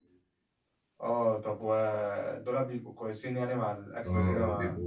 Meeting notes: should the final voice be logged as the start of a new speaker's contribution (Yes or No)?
Yes